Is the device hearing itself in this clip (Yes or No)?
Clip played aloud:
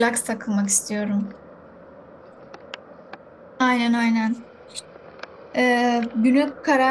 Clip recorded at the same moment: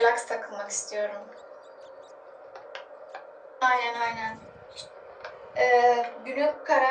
Yes